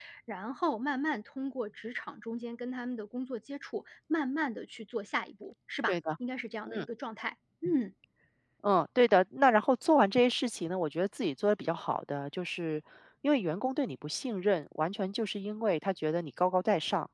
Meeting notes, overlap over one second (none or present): none